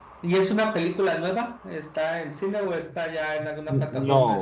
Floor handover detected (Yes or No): Yes